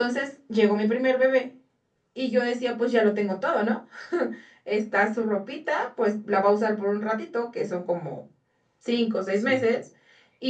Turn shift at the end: No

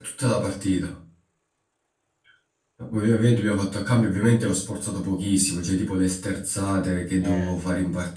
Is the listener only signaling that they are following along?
Yes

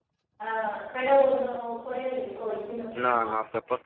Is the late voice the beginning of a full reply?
Yes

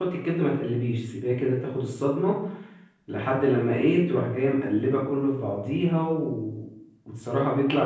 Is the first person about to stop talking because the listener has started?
No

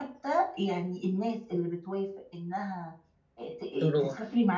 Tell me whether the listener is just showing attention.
Yes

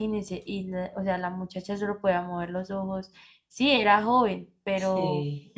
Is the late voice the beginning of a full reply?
No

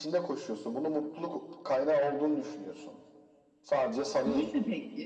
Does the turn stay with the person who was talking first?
No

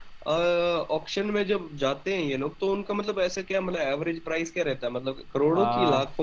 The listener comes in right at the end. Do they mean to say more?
Yes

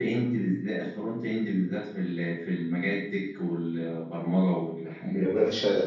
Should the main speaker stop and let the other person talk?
Yes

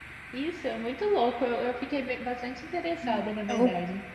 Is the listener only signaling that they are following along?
No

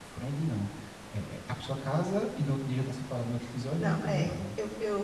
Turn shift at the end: Yes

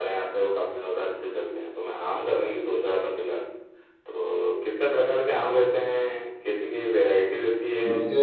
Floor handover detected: No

